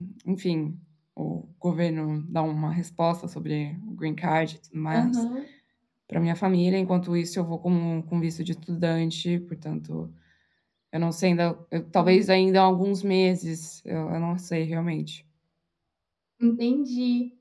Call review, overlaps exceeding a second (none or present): none